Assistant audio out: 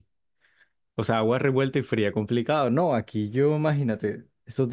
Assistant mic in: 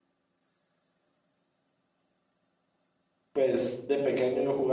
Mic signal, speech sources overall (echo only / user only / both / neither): user only